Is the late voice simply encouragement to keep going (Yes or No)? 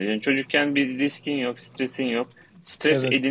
Yes